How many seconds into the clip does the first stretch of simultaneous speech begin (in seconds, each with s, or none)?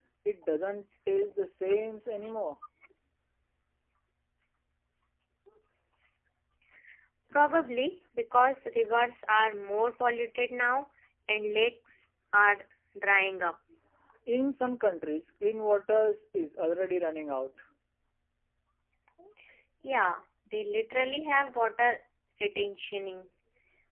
none